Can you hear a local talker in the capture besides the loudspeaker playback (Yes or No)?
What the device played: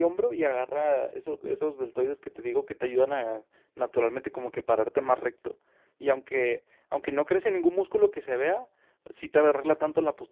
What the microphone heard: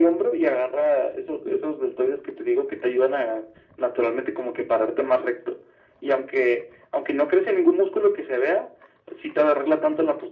No